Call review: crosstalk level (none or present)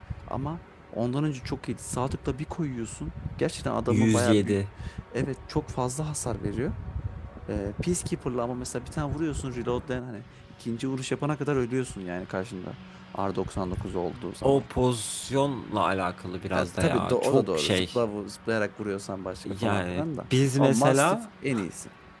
present